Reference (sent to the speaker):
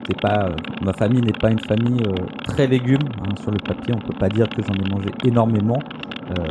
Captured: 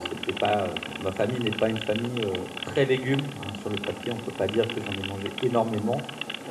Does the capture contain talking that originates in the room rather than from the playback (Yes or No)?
No